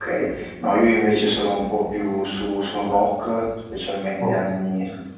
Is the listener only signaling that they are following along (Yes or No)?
Yes